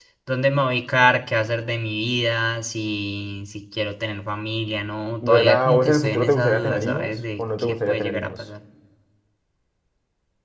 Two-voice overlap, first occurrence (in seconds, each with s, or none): 5.2 s